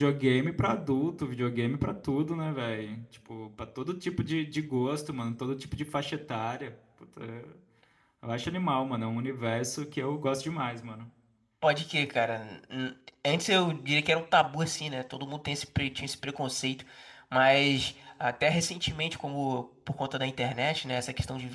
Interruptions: none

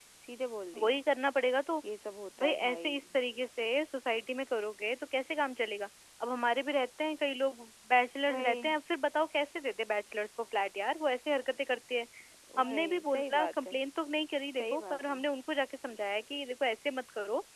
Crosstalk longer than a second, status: present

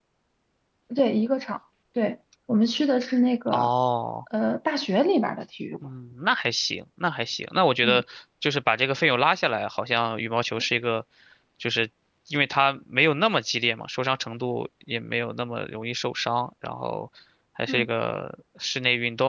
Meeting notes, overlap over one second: none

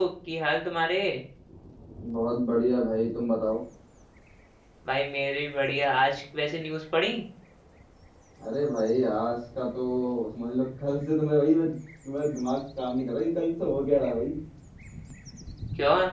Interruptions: none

